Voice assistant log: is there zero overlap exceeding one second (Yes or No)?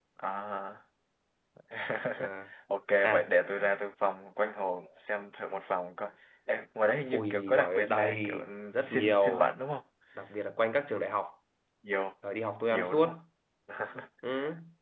No